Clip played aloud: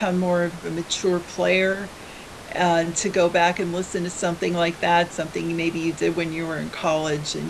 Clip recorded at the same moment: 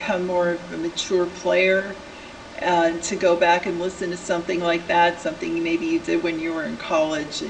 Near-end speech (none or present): none